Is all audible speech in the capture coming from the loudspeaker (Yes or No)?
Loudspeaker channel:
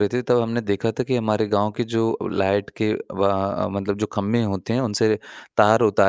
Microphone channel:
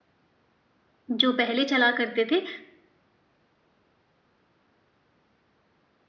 No